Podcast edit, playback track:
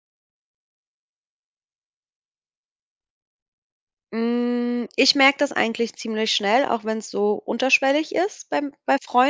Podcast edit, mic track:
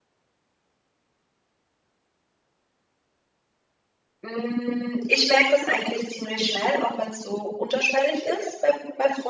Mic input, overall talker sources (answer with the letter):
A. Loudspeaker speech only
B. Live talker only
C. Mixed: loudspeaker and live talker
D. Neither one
A